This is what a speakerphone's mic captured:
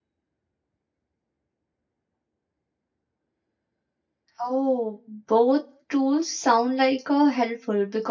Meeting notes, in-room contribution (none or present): present